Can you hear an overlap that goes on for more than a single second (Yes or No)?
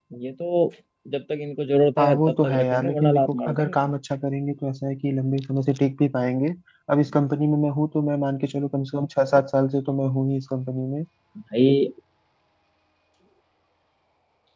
Yes